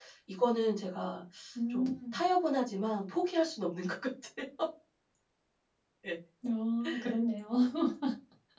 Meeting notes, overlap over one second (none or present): none